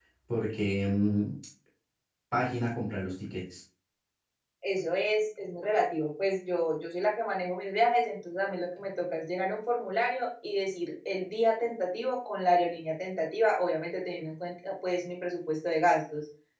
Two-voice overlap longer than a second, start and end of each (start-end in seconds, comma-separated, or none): none